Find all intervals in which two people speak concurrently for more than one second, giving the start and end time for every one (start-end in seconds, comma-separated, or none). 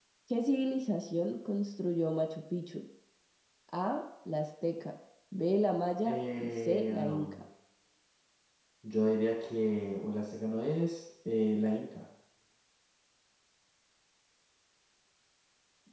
6.0-7.4